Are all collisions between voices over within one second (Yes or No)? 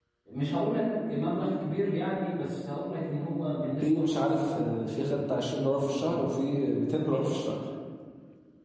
No